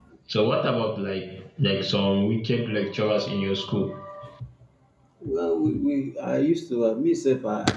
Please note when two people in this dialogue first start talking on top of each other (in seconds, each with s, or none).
none